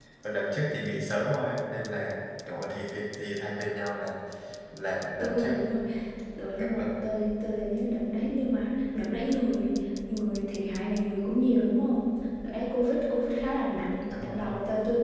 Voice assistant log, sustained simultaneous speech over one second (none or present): none